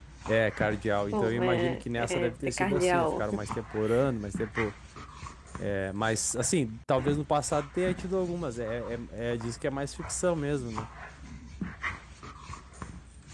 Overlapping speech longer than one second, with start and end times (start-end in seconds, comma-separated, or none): 1.1-3.2